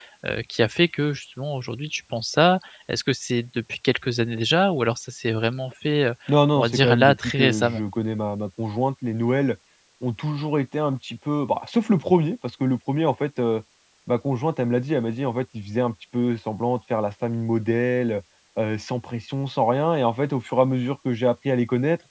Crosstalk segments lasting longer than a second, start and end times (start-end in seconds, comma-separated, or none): 6.5-7.8